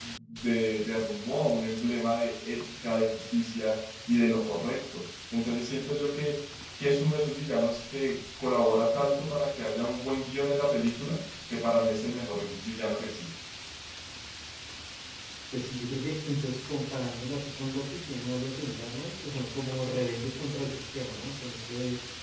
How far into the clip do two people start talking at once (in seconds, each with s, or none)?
none